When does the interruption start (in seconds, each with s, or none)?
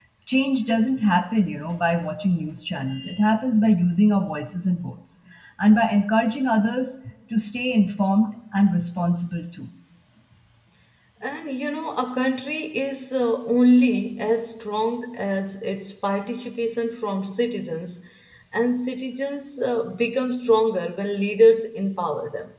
none